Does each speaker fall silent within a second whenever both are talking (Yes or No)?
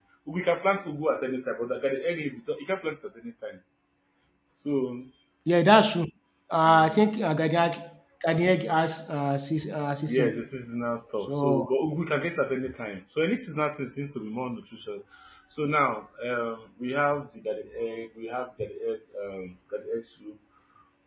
Yes